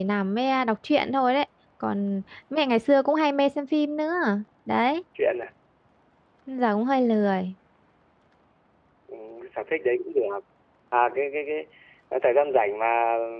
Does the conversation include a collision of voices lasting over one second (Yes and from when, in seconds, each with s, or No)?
No